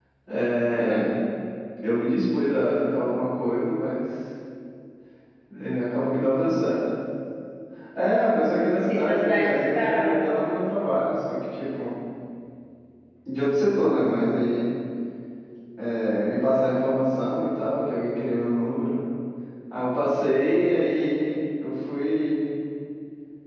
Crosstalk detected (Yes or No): Yes